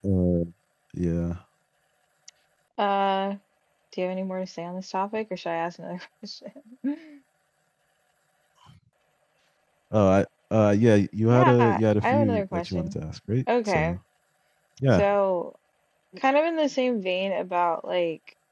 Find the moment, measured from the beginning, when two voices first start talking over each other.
11.3 s

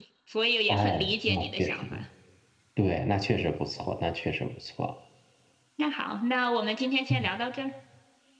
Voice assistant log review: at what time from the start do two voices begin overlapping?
0.7 s

